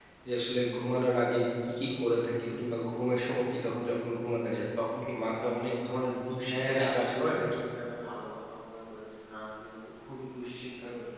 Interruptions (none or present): present